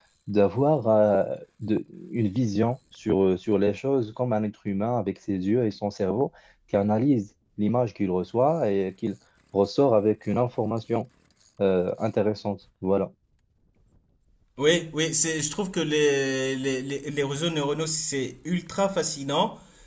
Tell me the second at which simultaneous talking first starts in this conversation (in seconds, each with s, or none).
none